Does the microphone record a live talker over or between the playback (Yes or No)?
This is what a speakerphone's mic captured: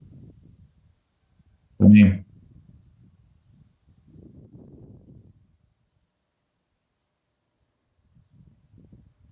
Yes